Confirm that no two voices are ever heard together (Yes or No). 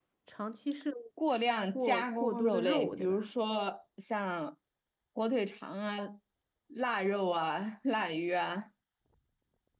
No